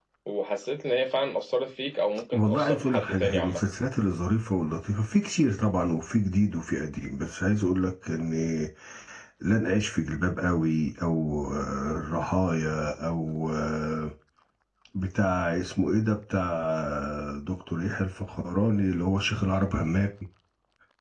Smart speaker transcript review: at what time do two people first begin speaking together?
2.3 s

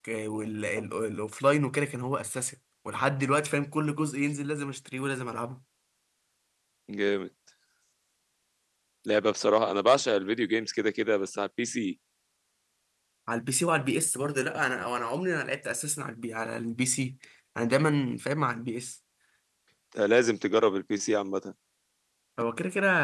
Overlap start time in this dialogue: none

